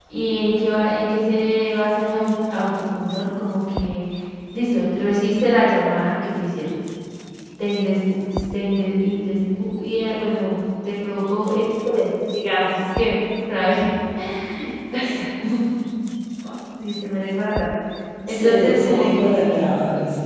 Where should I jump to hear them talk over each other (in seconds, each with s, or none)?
18.3 s